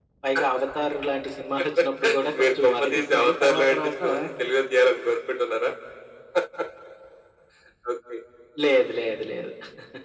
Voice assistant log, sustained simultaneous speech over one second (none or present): present